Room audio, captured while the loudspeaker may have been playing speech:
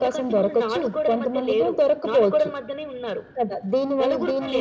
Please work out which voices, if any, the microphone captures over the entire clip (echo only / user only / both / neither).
echo only